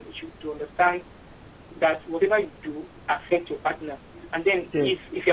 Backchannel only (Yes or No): Yes